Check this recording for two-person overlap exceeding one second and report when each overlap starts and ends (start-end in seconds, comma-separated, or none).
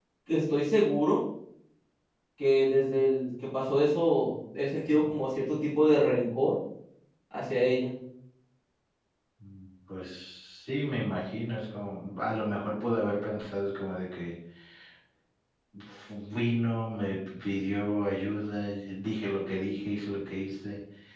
none